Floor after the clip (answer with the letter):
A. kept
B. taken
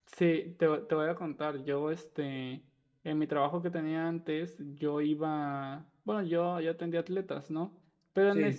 A